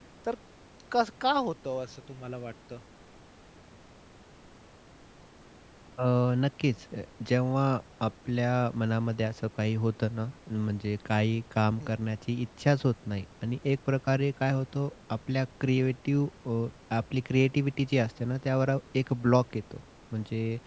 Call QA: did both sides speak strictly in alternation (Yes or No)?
Yes